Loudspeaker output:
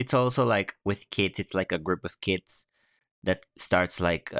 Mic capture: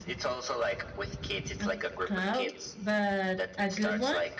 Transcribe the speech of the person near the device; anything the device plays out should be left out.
a clown, but a good one.

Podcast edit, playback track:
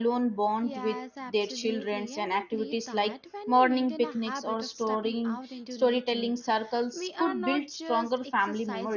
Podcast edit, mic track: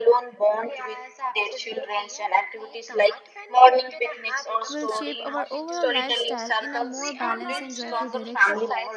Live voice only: will shape our overall lifestyle in a more balanced and joyful direction?

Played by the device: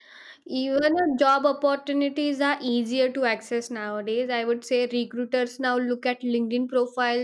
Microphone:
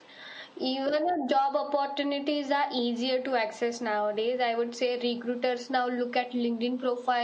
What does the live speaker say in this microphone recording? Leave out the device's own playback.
none

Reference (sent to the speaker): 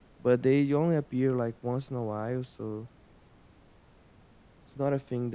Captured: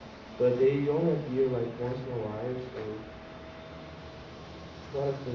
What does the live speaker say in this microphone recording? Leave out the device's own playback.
none

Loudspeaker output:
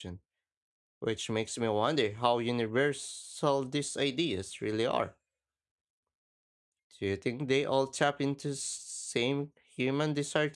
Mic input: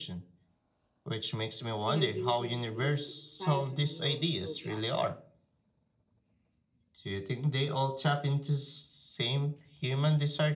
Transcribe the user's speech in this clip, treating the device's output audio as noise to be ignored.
you know, uses a sidereal zodiac,

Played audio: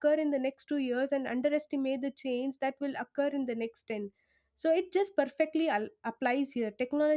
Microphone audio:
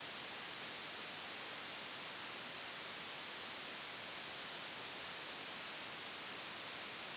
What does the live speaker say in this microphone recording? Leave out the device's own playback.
none

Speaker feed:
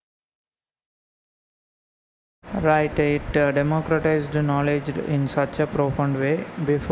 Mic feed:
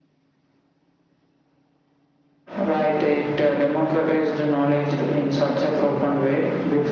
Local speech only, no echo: none

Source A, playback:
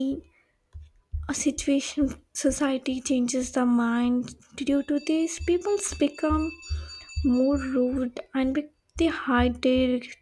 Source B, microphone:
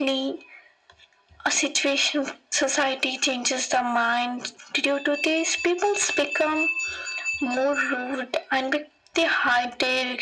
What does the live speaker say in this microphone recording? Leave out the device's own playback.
none

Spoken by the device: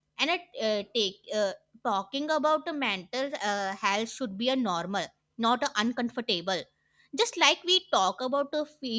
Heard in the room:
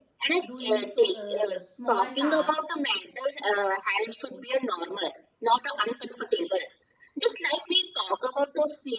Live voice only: doing so uh, small tasks

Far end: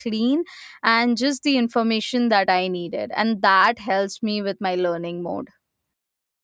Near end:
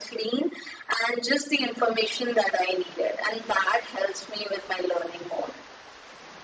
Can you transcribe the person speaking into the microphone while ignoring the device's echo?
none

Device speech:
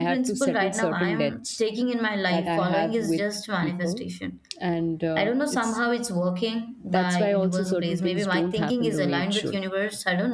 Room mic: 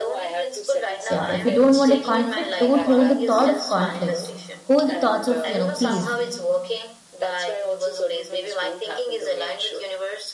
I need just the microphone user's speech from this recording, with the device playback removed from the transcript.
yeah, if you don't want a conflict, don't hold the thought of conflicts. Hold the thoughts of, you know, peace.

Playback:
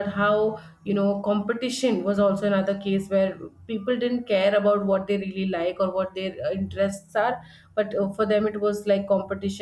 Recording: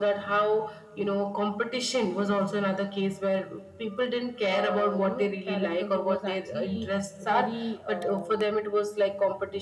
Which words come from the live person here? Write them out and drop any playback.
uh, you know character who was actually very um,

